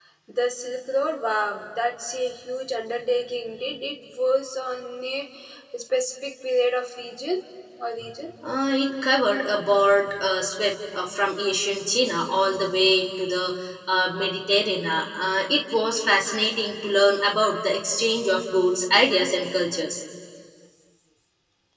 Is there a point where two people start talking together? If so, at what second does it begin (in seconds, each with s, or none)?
none